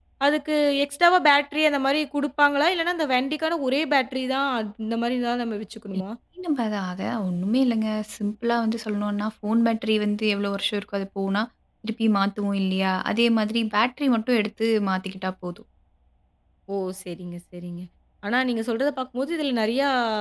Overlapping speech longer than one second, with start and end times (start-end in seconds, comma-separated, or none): none